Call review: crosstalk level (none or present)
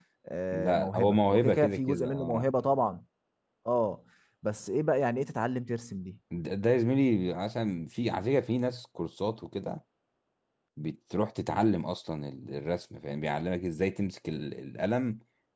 present